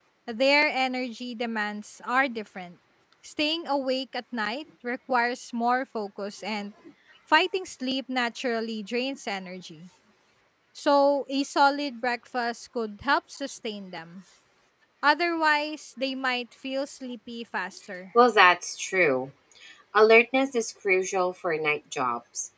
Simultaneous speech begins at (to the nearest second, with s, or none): none